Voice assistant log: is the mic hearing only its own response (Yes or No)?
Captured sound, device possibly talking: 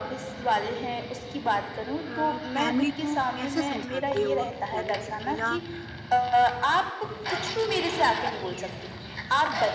No